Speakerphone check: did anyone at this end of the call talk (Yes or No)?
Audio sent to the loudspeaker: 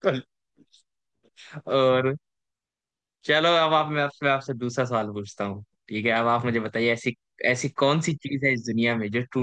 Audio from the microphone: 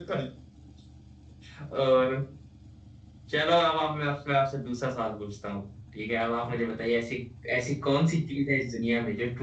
No